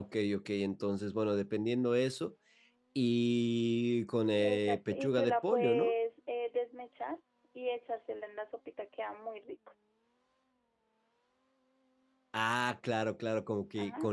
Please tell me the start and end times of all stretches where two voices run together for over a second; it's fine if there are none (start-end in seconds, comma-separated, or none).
4.4-5.9